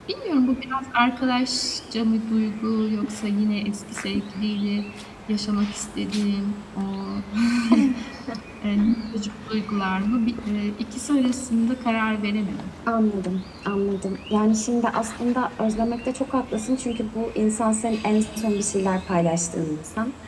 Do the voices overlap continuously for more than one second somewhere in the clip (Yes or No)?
No